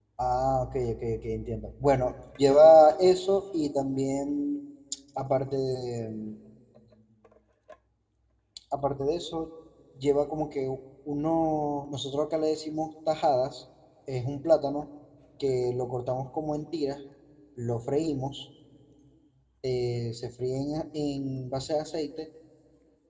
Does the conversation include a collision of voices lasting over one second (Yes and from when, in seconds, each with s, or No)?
No